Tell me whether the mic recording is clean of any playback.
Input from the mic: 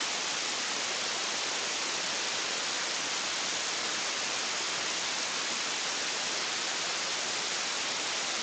Yes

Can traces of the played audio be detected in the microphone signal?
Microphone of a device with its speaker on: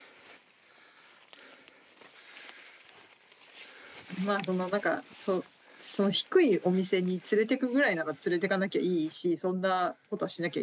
No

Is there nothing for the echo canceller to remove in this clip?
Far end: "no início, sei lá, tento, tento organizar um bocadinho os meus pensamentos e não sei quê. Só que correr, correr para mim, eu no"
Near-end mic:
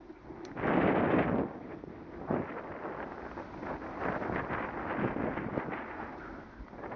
Yes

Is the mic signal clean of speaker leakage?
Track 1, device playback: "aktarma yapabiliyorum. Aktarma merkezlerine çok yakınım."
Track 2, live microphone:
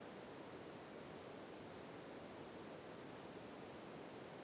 Yes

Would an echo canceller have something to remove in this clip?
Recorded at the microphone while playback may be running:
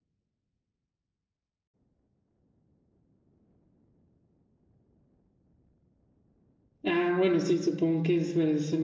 No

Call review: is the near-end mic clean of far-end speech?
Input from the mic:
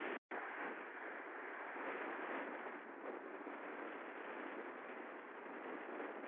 Yes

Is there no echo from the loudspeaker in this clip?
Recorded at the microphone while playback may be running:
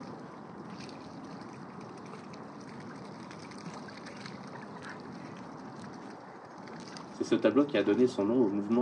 Yes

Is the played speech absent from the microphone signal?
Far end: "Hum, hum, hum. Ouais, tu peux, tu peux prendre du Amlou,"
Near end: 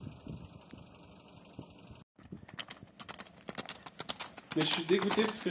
Yes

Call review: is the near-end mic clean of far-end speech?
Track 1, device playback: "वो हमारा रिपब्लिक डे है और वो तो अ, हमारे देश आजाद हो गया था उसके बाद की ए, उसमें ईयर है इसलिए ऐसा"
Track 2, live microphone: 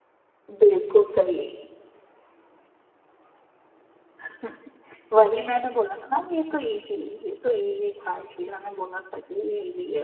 Yes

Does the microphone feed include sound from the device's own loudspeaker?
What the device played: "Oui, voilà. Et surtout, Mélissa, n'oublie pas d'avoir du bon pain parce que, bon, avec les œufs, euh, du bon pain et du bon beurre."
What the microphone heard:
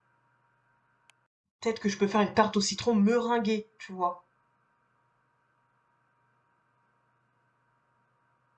No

